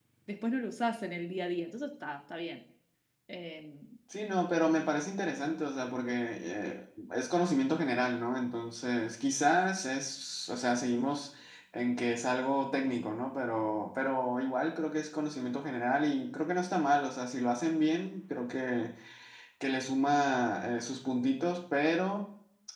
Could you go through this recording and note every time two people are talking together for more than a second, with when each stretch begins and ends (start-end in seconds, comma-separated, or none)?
none